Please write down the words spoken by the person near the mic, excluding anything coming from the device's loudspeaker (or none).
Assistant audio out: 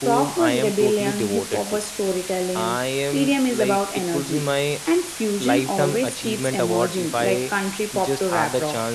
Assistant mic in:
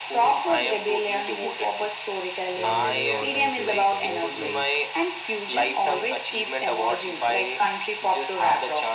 There are many all-time favorite singers. Like